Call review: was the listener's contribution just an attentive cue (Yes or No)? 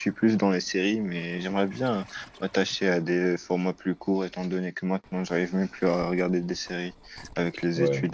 No